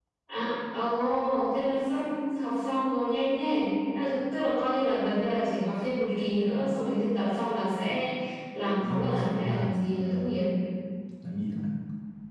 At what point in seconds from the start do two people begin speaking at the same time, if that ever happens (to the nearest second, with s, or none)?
9 s